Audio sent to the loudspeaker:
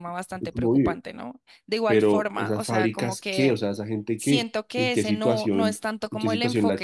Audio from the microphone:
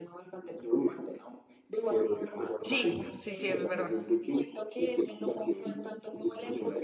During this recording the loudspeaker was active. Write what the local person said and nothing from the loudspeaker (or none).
Sí, sí, sí, es verdad.